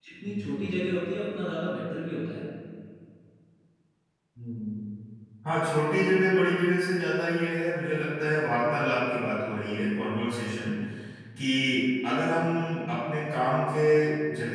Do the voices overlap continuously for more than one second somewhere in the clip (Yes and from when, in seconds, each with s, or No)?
No